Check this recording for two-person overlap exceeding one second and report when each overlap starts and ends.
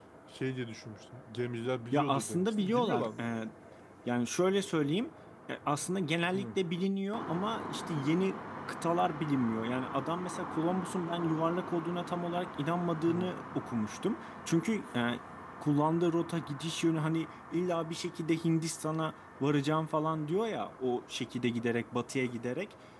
1.9-3.4

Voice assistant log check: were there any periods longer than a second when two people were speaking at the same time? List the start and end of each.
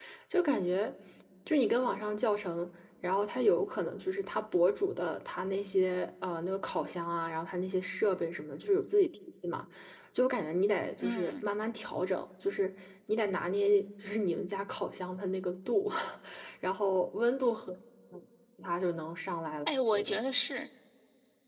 none

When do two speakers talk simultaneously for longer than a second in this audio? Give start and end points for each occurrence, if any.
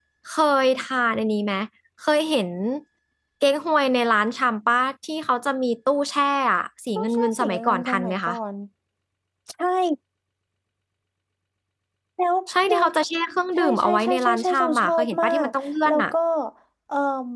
7.0-8.3, 13.6-15.5

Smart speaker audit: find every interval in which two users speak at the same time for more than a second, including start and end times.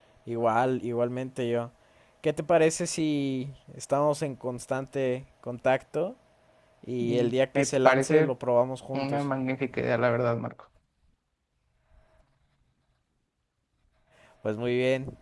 7.0-8.3

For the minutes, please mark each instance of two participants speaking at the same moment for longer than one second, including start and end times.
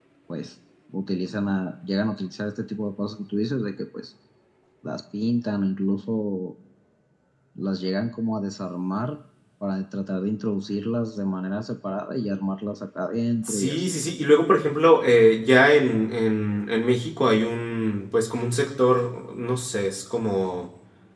none

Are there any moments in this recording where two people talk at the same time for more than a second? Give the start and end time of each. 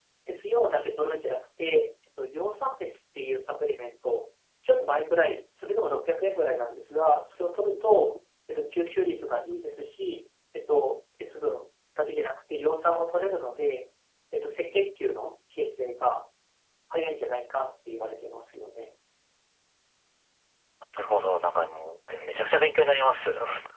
none

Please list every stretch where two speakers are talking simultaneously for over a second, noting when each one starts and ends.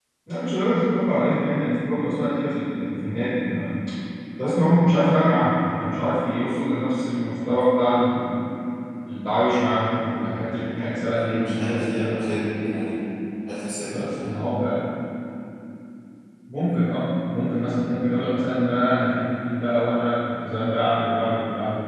11.2-12.5

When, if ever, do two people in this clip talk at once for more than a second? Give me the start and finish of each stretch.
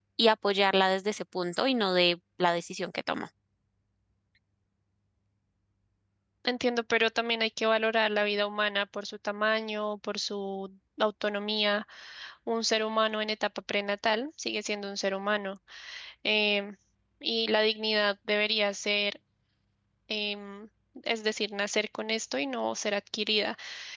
none

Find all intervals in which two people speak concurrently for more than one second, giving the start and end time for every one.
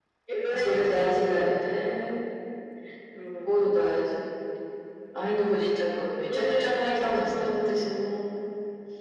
0.5-2.0, 6.3-7.8

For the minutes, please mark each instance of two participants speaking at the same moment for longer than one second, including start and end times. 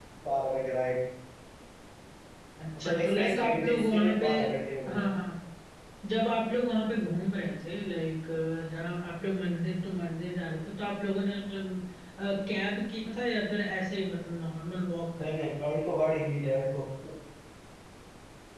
2.8-4.2

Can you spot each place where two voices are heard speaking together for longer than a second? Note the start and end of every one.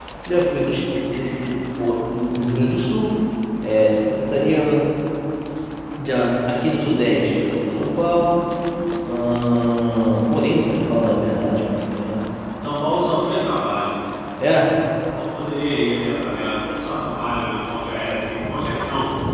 none

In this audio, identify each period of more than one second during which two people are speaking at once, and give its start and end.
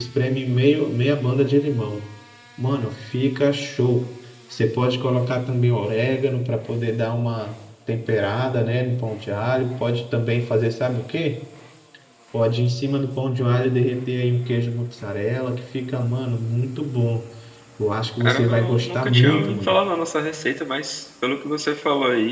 18.2-19.8

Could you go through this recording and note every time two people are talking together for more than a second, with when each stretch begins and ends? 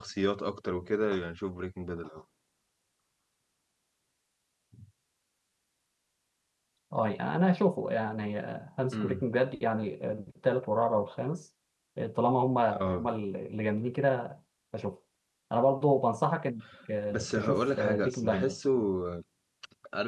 17.1-18.6

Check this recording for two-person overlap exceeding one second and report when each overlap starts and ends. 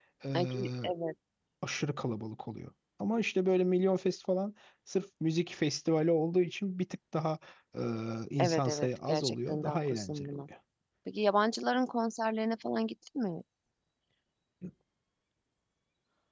8.4-10.4

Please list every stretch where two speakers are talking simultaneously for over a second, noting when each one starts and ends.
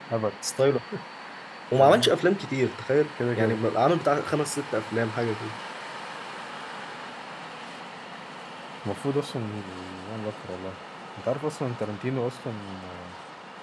none

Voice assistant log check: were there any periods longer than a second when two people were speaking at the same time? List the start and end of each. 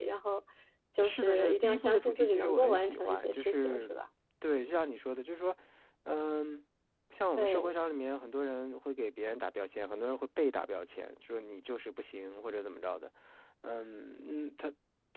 1.0-3.8

